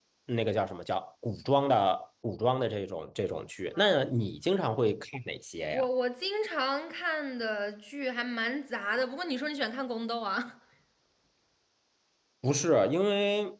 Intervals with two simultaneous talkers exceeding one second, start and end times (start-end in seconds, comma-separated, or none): none